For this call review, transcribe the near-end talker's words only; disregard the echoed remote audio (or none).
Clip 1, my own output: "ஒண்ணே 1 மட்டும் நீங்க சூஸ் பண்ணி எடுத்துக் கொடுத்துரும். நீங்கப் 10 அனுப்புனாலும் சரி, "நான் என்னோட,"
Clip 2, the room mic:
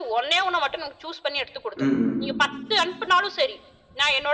ம், ம்.